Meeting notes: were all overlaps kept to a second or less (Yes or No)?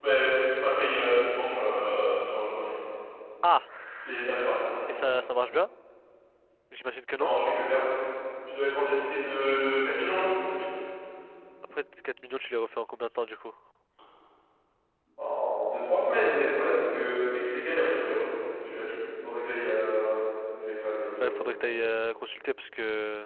Yes